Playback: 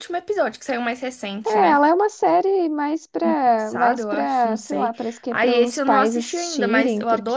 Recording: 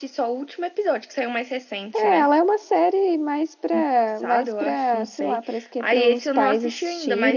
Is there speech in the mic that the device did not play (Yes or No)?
No